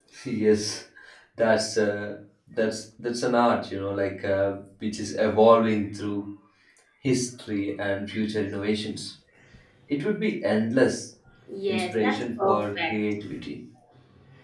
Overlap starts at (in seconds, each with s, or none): 11.7 s